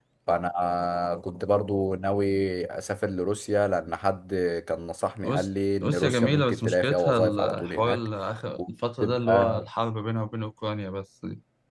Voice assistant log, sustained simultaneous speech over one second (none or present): present